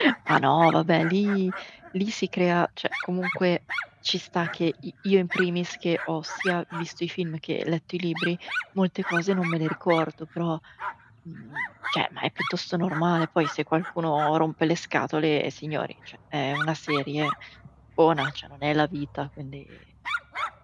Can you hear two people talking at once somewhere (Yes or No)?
No